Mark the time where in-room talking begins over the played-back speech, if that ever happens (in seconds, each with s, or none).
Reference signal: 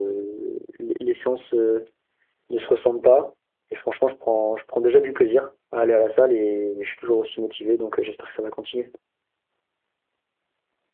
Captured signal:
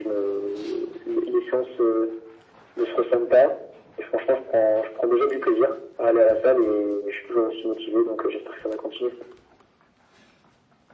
none